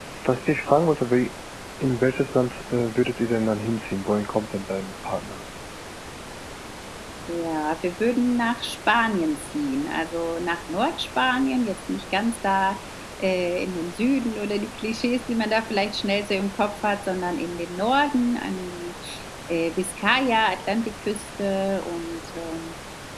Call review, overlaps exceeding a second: none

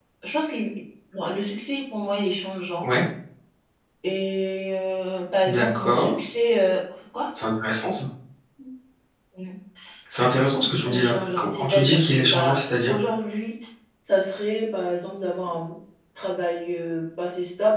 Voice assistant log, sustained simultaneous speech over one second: present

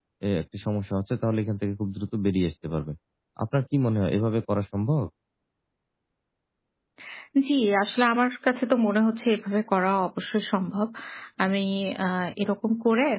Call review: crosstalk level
none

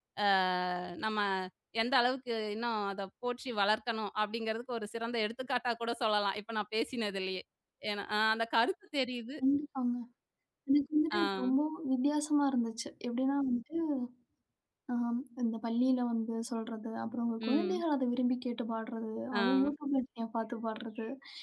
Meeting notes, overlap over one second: none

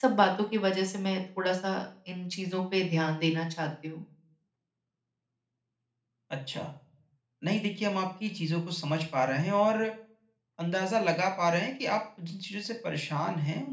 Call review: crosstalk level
none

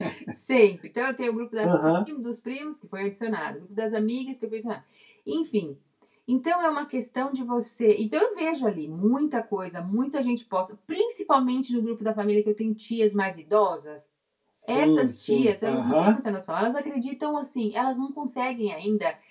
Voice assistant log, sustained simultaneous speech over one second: present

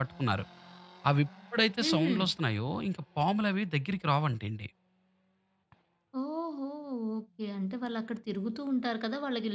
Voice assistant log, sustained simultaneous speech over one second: none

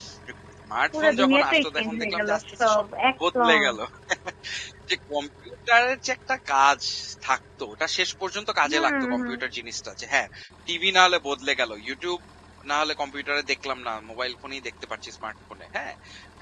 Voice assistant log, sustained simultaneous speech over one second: present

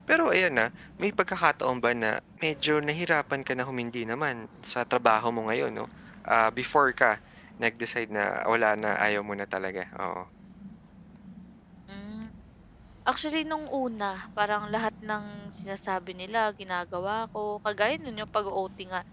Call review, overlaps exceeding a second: none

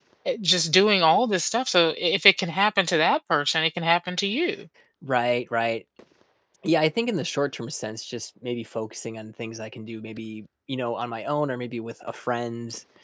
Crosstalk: none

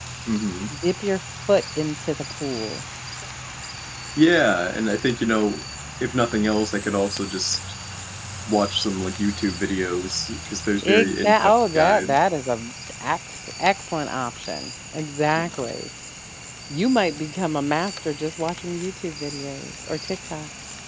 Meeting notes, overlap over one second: present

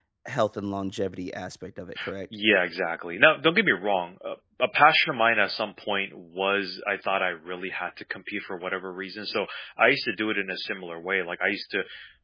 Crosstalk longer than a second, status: none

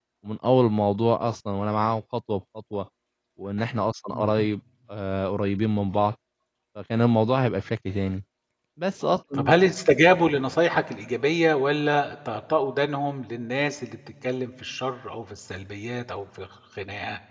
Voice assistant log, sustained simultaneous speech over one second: none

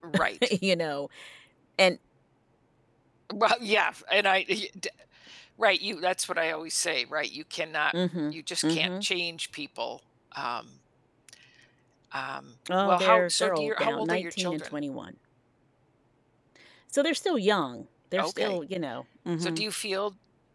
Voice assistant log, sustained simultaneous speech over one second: present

